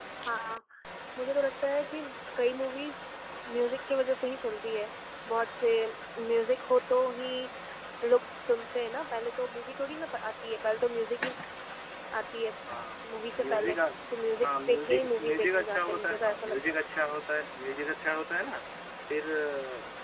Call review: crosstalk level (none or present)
present